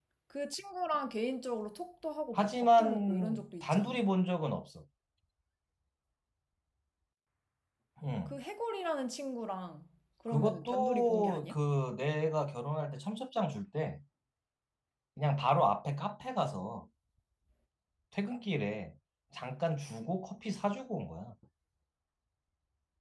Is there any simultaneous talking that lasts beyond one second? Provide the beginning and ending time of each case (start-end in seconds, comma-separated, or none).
2.4-4.0, 10.3-11.6